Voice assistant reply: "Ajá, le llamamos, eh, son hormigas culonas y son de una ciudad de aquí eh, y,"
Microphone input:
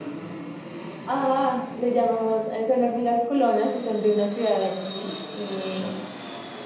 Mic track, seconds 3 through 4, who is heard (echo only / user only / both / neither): echo only